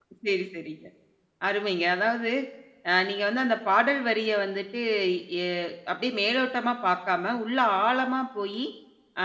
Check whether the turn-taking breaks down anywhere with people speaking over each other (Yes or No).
No